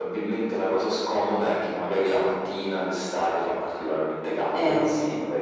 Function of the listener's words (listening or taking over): listening